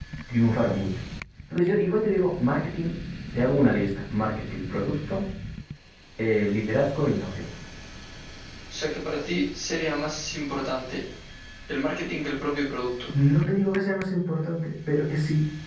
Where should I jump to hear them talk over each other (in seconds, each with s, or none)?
none